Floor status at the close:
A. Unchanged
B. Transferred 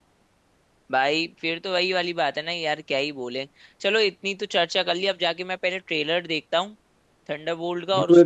B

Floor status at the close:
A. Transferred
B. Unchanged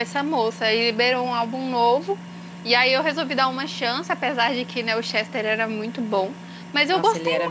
A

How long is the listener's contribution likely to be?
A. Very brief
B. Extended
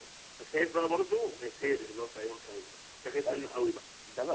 B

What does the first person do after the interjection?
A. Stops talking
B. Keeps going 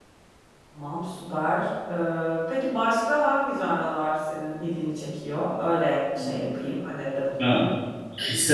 A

